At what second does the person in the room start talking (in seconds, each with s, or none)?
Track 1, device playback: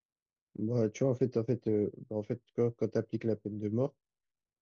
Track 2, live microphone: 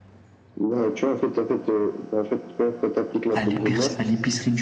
3.3 s